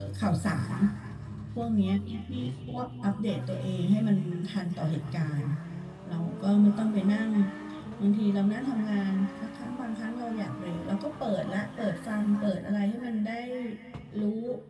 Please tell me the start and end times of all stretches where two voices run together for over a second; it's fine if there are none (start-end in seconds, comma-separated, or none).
none